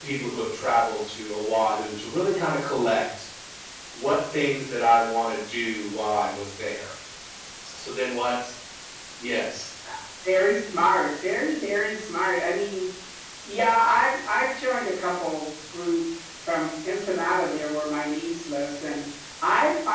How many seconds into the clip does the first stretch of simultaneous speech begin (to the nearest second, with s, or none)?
none